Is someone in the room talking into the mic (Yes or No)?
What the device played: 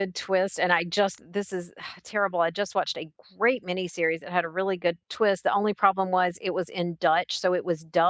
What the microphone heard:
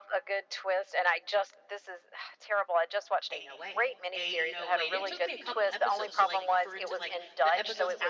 Yes